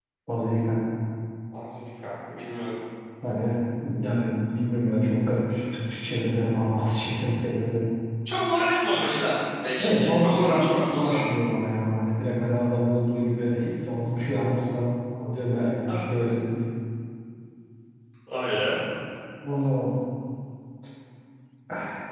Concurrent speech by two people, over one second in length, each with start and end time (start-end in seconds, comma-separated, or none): 9.8-11.2